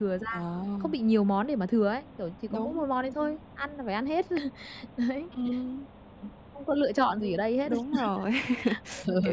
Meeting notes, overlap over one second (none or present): none